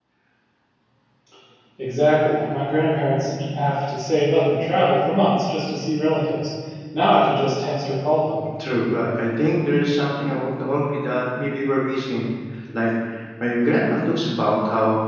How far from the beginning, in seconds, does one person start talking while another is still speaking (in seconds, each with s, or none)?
none